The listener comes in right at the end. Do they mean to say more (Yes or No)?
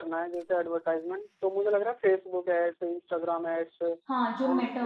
Yes